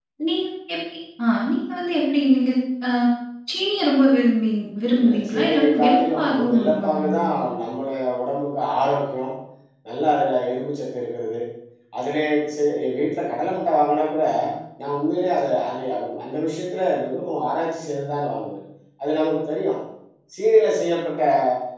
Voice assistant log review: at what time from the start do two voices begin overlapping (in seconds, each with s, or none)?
4.9 s